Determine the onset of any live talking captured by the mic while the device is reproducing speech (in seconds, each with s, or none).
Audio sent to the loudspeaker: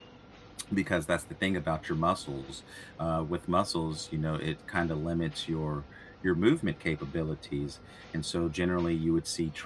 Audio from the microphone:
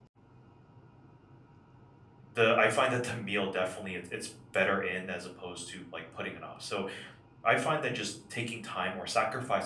2.3 s